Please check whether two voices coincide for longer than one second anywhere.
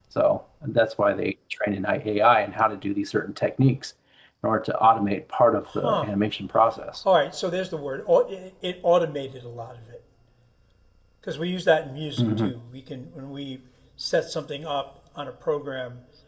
No

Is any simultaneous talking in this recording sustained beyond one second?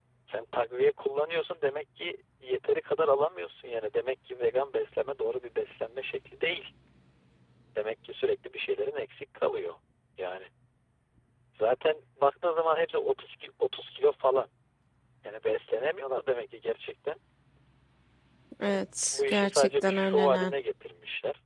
Yes, from 18.6 s

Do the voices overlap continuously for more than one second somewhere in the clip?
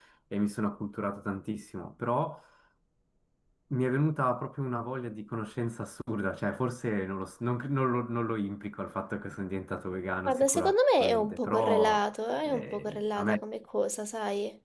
Yes, from 10.3 s

